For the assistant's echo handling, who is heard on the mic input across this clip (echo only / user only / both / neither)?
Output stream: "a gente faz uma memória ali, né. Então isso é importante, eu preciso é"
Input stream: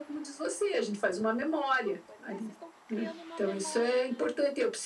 both